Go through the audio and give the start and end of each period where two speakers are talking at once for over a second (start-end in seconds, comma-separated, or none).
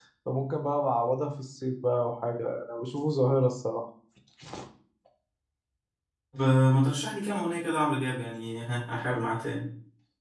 none